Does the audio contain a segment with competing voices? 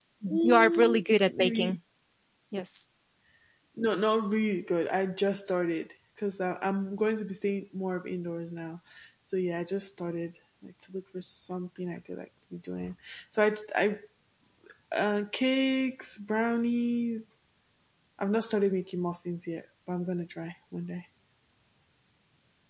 Yes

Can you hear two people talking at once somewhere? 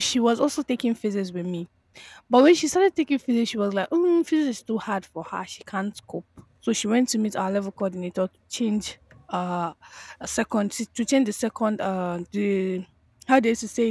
No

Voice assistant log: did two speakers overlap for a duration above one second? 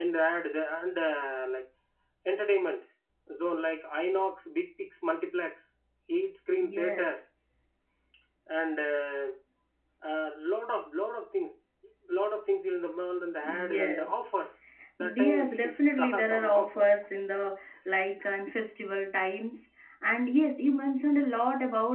Yes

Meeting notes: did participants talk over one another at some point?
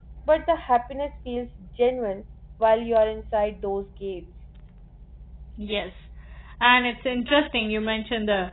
No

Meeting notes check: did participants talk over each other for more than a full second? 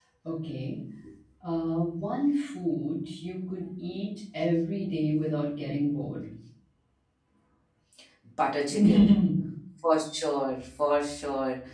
No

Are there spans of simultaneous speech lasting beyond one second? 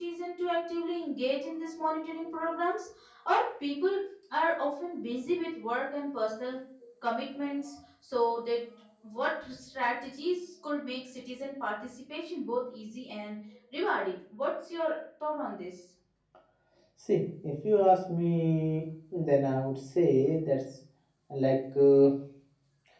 No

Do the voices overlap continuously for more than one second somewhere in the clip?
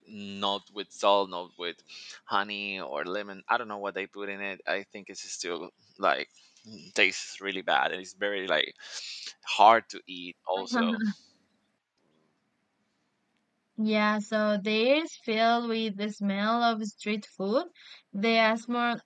No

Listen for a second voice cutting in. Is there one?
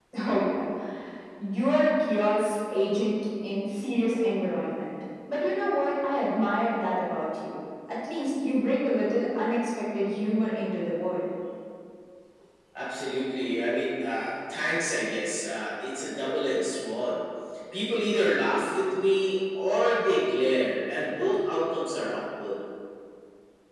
No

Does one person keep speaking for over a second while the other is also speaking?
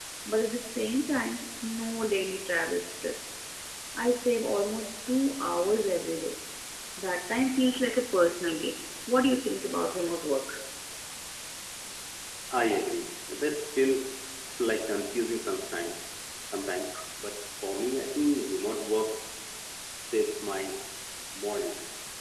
No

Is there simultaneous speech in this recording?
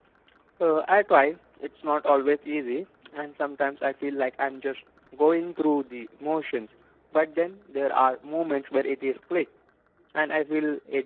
No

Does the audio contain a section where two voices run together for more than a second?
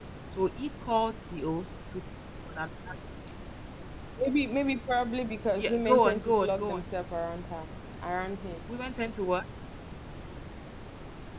Yes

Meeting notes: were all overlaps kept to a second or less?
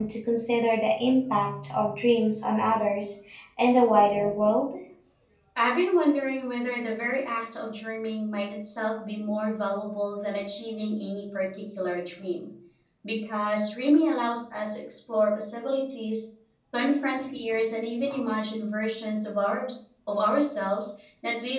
Yes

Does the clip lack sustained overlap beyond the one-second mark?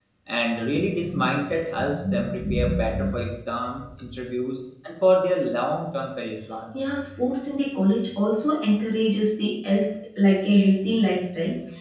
Yes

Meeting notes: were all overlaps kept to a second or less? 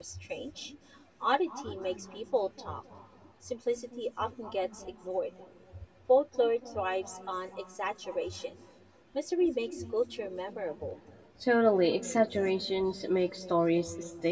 Yes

